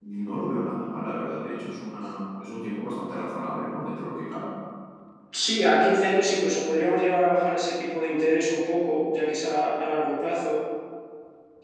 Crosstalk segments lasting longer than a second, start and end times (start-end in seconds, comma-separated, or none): none